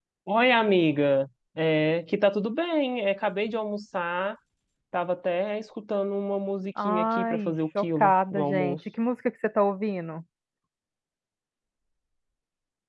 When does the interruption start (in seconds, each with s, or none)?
6.8 s